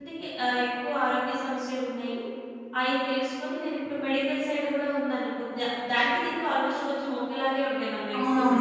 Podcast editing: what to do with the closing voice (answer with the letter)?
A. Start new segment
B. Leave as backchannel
A